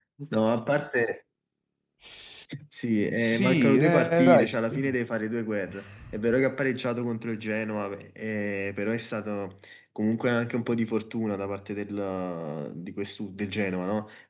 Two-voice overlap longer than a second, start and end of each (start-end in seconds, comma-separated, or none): 3.2-4.8